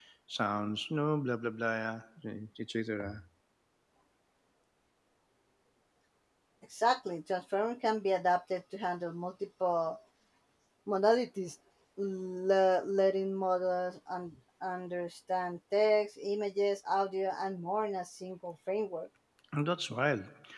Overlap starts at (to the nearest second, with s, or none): none